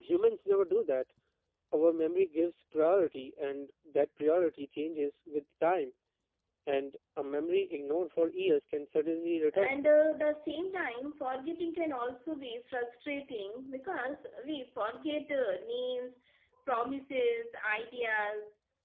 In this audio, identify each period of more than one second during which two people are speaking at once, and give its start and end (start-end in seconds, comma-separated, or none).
none